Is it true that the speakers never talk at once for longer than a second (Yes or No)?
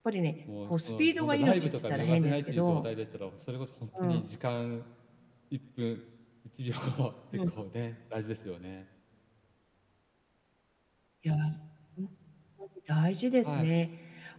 No